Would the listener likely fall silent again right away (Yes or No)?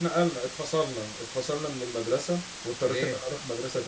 Yes